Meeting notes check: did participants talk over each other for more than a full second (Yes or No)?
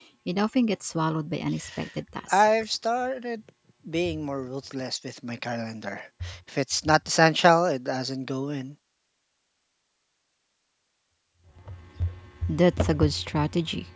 No